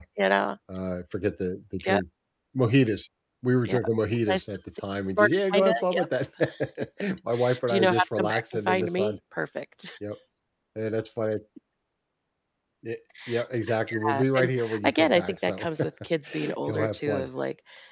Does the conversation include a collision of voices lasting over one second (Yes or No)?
Yes